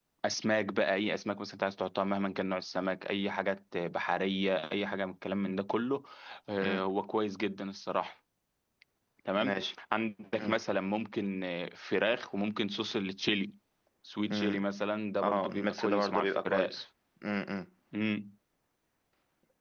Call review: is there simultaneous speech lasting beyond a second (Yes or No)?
Yes